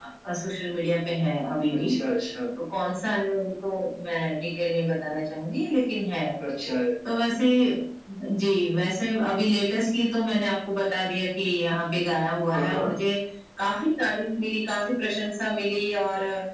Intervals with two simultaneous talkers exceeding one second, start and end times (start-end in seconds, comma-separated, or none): none